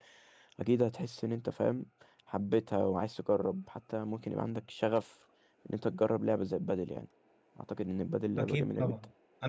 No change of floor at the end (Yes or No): No